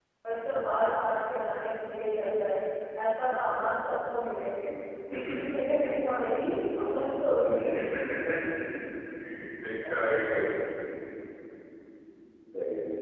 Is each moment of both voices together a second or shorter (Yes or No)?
Yes